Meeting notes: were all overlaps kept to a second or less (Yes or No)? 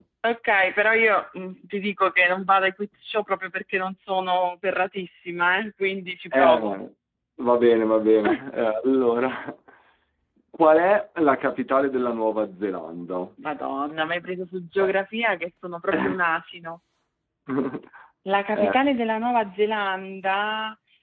Yes